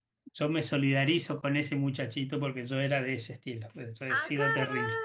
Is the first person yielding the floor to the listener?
Yes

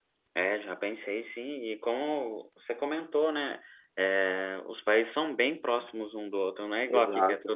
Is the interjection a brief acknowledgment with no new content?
Yes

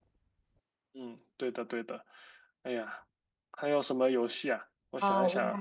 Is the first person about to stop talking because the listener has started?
Yes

